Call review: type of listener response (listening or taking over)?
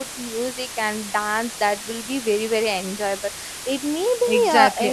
taking over